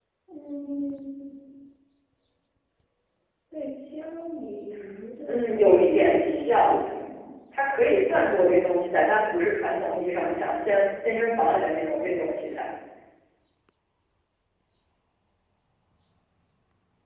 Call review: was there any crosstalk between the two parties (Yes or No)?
Yes